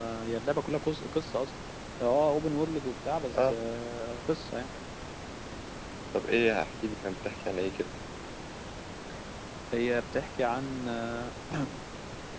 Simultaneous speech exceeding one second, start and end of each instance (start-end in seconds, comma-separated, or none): none